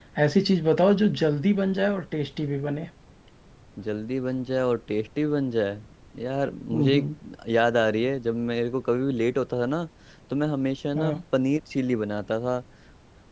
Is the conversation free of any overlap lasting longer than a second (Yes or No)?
Yes